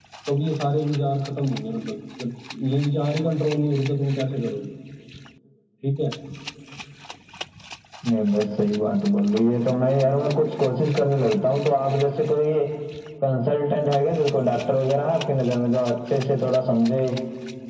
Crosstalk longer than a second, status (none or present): none